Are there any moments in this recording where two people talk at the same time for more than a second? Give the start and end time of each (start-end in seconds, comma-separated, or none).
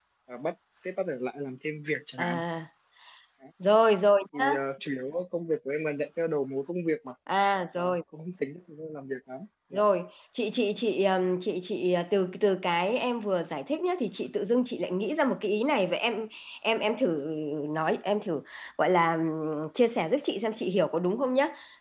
none